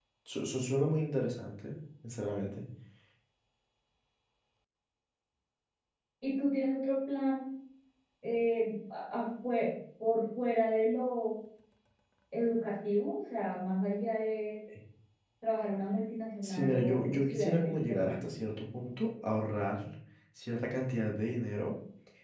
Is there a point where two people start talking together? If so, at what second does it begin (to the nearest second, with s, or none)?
16 s